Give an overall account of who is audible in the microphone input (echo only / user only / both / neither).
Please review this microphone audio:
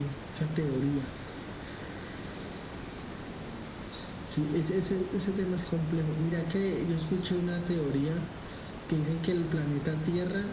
echo only